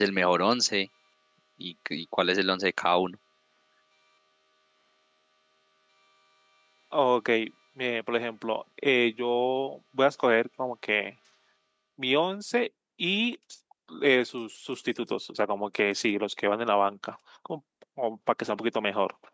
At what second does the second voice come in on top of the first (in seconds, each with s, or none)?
none